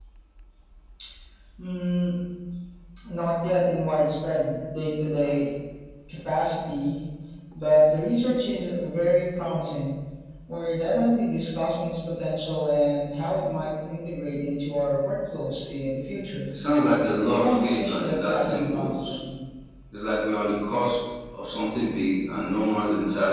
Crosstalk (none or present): present